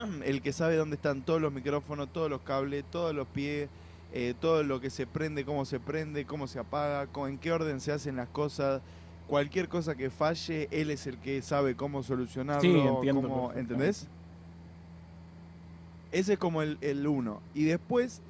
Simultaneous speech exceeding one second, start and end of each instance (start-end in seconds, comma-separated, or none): 12.6-13.9